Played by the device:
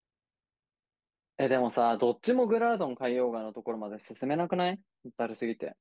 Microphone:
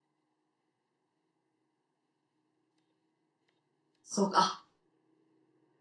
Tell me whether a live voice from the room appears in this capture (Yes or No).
Yes